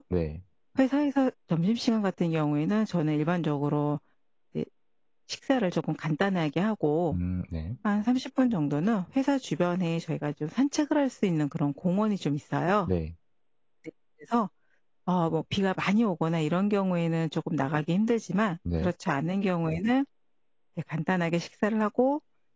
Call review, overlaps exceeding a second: none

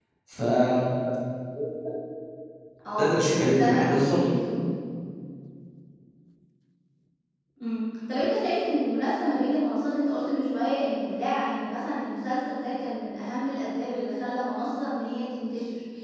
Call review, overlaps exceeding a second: present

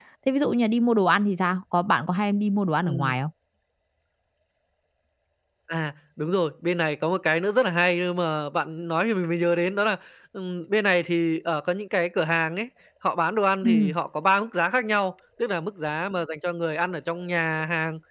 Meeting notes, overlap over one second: none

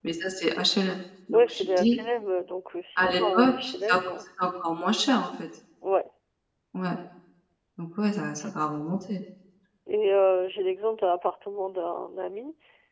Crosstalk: present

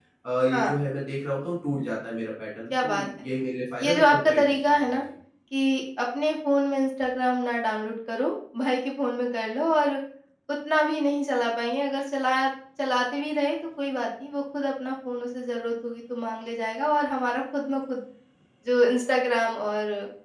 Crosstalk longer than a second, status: present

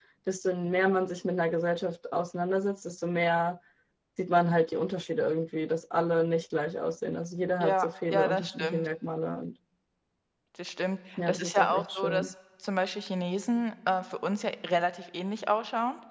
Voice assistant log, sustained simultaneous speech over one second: present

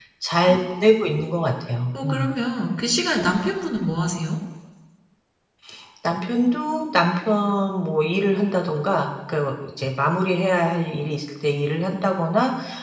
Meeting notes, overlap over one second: none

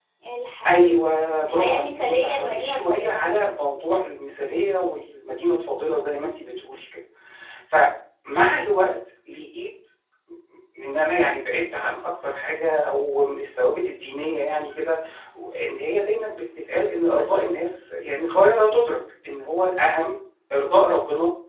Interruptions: present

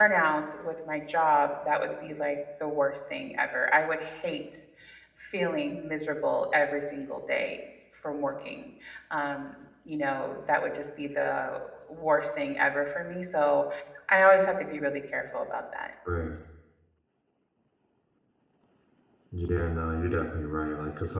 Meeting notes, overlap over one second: none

